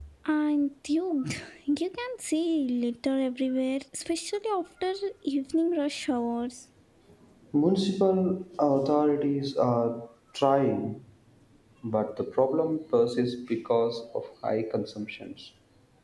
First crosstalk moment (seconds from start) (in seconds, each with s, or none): none